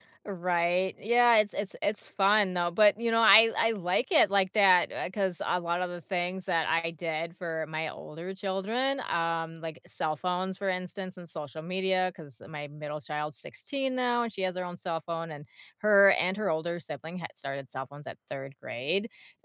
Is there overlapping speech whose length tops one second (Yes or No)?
No